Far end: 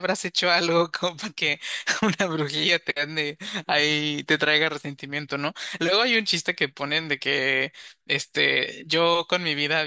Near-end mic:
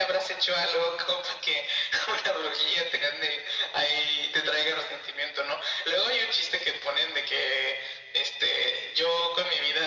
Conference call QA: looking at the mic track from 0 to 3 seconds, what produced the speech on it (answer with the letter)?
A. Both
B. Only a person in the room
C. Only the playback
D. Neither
C